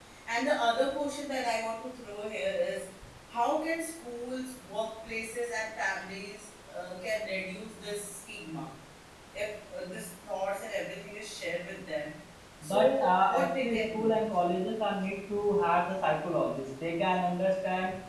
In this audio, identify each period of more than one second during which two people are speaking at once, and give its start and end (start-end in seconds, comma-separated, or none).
12.6-14.1